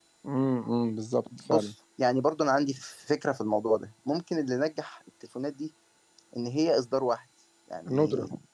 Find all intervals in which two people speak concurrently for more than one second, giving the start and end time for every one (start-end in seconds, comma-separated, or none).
none